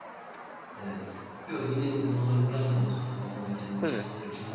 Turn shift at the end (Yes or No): No